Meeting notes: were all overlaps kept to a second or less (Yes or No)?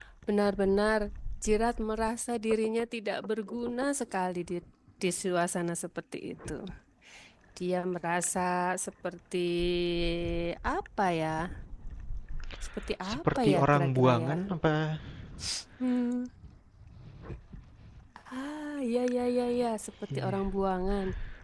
No